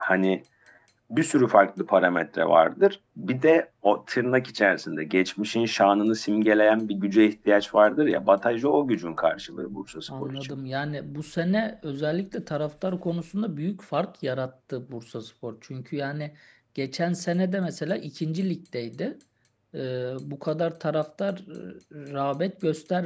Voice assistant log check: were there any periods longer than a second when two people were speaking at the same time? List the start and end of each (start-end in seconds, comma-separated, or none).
none